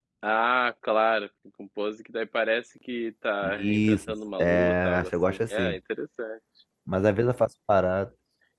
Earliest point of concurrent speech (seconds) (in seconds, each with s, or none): 3.4 s